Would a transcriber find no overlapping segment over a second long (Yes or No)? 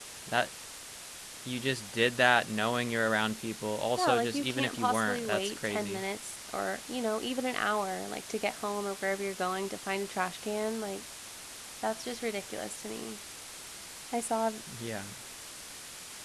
No